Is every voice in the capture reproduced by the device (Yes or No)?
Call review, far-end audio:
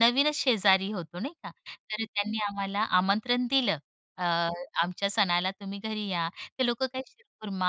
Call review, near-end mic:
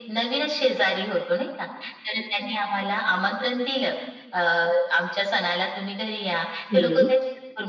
No